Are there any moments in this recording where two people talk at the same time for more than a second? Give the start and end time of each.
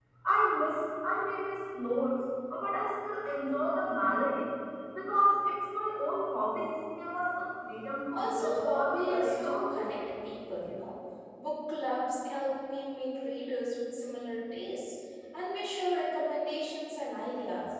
8.1-10.0

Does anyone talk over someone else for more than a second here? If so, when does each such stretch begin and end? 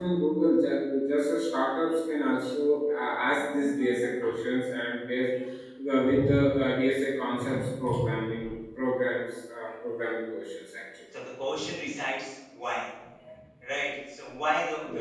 none

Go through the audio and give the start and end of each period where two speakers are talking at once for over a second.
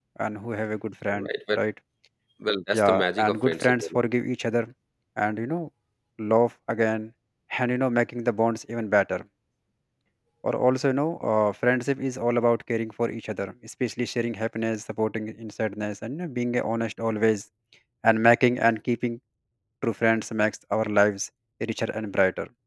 2.7-4.0

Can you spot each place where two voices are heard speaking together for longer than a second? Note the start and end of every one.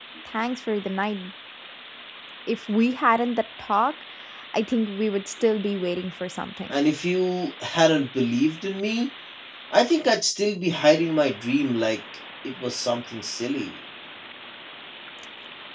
none

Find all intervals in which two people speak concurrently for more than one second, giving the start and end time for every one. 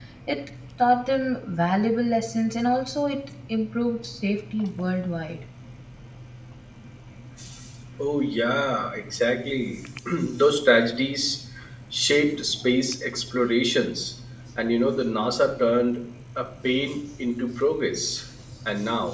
none

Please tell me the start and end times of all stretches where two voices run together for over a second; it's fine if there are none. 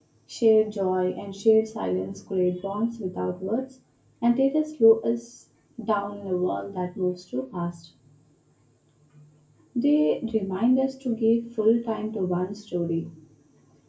none

